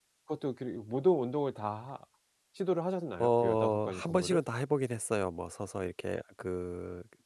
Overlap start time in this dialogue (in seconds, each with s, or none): 3.2 s